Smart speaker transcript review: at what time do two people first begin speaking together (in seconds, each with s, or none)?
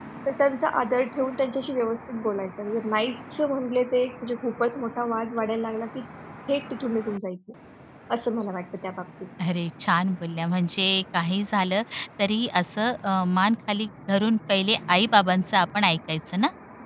none